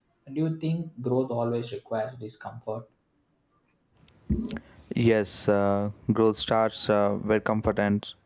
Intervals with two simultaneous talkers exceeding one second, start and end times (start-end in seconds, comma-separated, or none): none